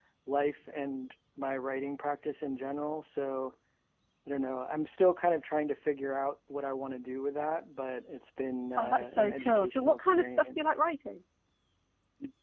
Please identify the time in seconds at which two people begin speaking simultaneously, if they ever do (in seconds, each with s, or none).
8.8 s